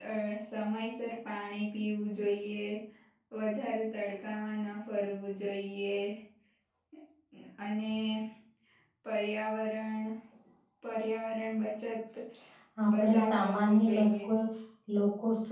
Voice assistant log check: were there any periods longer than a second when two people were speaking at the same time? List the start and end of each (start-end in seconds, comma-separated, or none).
12.9-14.2